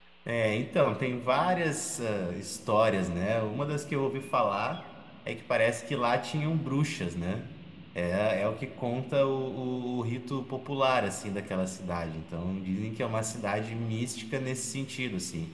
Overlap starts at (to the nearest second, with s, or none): none